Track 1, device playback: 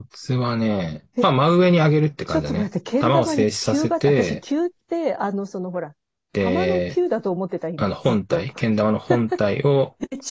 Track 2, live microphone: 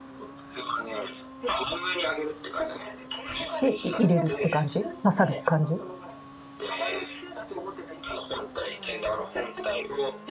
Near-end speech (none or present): present